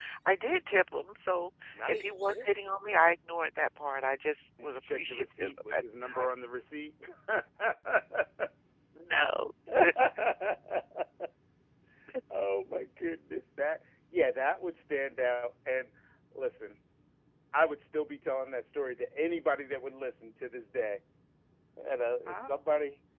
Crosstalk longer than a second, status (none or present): present